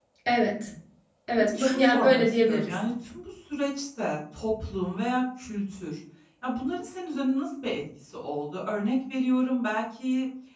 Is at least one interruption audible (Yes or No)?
Yes